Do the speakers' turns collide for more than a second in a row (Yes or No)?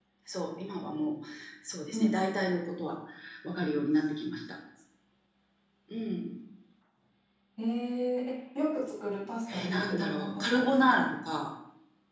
Yes